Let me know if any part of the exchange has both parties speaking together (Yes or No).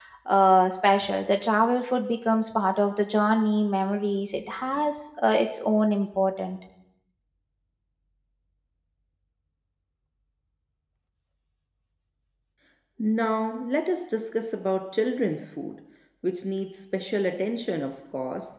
No